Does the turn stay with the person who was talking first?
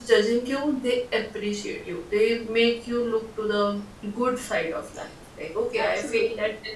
Yes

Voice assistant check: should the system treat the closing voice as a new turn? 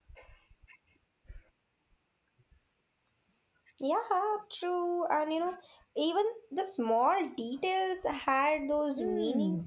Yes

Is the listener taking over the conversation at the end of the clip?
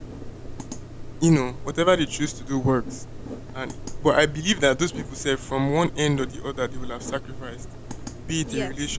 No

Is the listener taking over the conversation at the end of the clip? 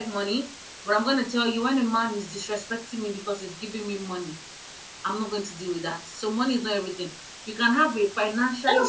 Yes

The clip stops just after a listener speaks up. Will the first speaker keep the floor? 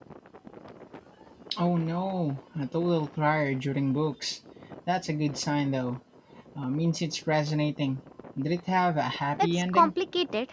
No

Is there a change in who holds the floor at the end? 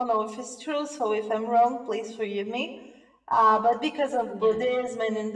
No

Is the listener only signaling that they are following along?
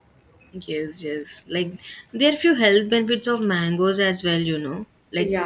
Yes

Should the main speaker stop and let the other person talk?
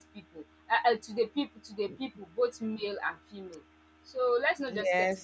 Yes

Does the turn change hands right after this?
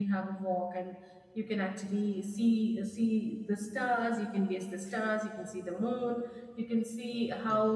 No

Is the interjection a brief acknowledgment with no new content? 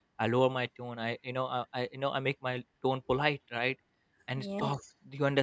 Yes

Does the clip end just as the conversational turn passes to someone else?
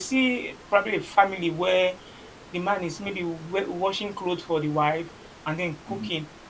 No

